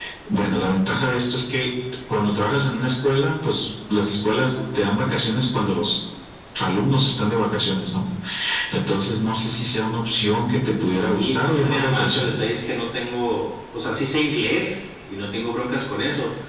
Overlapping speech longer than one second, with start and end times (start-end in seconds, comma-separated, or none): 10.8-12.3